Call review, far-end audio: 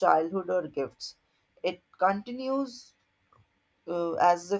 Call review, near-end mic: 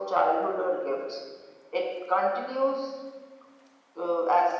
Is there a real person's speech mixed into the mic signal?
No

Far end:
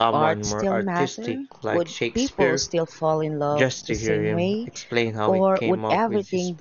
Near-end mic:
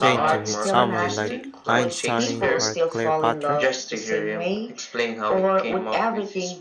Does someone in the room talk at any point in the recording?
Yes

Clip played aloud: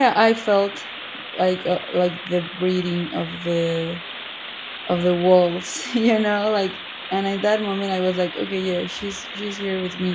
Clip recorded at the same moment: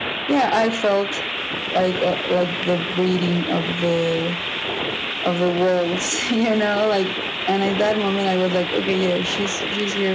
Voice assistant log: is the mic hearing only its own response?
Yes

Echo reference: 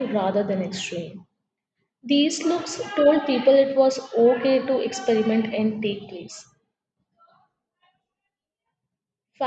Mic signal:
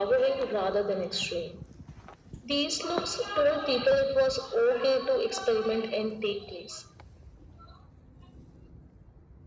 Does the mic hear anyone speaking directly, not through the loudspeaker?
No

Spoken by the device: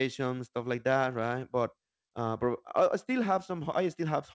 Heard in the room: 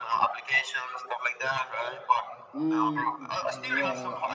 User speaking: Yes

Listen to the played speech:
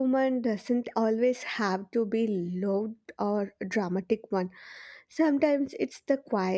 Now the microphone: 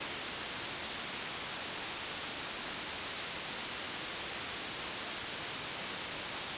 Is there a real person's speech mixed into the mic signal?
No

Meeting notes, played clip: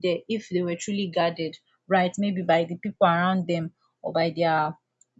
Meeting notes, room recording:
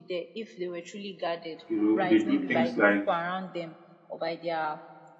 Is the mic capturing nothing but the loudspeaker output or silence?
No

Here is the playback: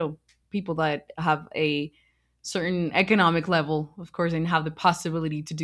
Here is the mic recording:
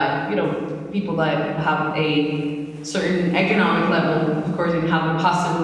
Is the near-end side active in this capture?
No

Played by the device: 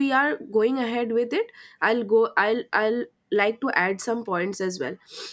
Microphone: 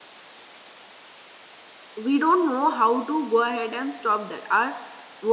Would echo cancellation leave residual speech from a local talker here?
Yes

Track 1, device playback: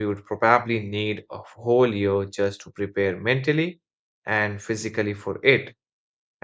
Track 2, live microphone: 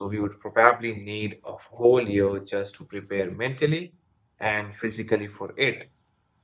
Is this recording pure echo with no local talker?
Yes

